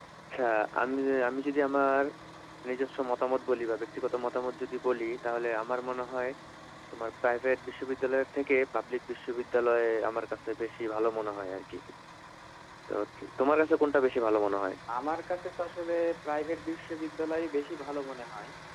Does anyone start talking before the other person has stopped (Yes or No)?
No